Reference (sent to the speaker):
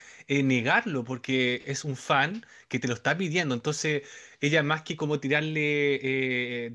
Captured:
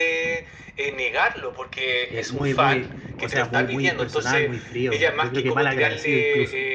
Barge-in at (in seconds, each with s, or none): 2.1 s